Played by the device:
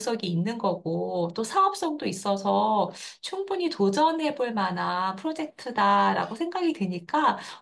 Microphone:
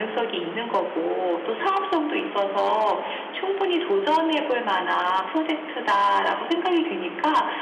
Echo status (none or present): present